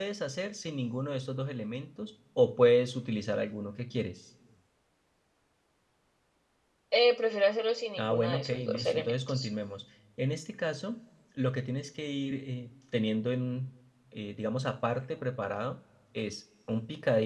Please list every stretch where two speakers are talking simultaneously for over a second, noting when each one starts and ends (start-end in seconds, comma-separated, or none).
8.0-9.5